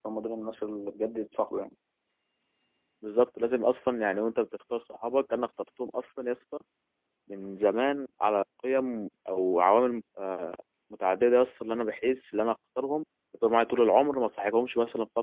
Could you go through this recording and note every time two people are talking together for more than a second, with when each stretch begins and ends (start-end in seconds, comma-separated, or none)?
none